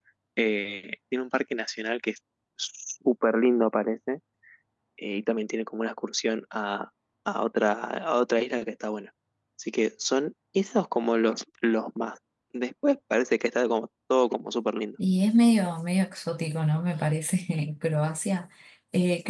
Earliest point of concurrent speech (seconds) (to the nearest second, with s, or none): none